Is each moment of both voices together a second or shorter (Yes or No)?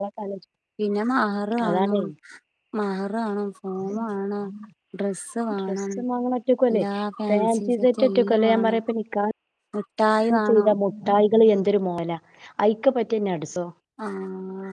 No